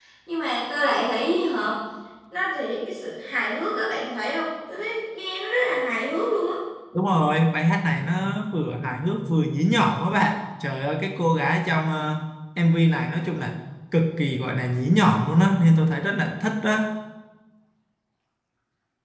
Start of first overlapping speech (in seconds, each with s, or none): none